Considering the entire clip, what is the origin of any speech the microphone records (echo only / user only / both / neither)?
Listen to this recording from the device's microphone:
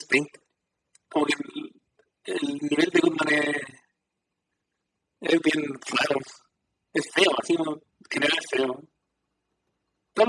echo only